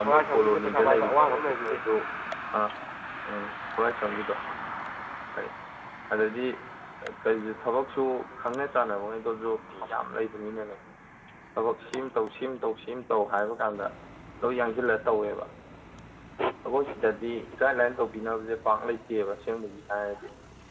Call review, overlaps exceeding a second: present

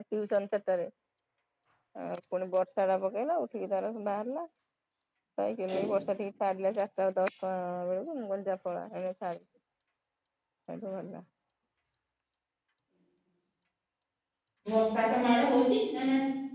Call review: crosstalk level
none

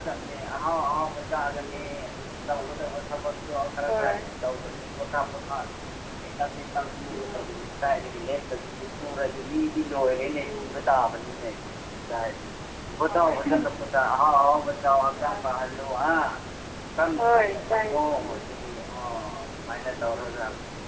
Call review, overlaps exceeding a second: present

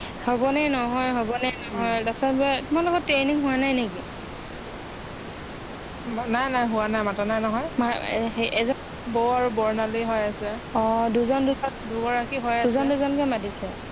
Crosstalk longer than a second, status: none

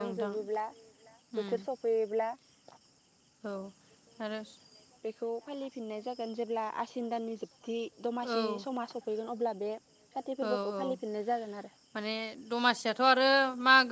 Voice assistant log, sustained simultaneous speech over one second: none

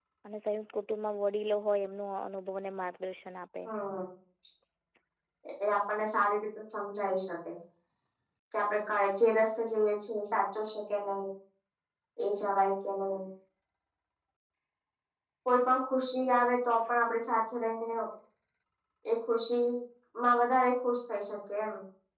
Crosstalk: none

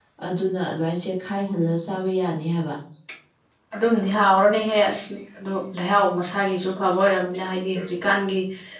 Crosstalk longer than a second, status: none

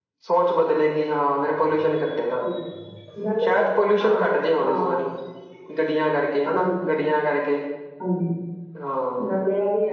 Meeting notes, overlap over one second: none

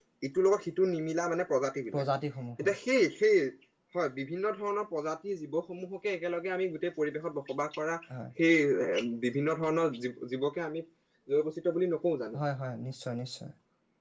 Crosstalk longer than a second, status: none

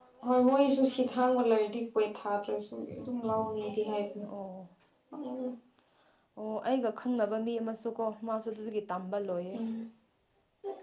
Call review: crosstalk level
none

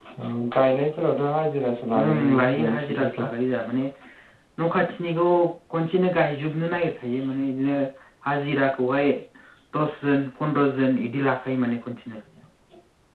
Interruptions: present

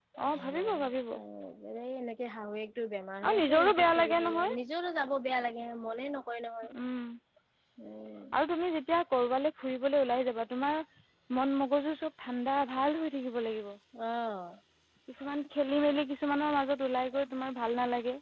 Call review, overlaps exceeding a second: present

